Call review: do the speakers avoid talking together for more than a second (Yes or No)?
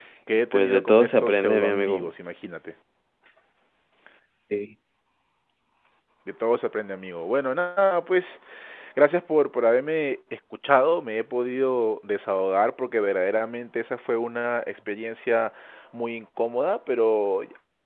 No